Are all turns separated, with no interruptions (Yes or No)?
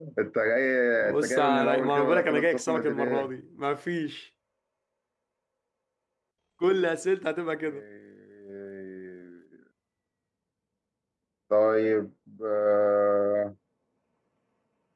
No